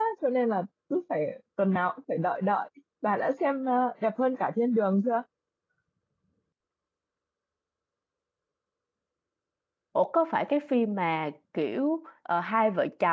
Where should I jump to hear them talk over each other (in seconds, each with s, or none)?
none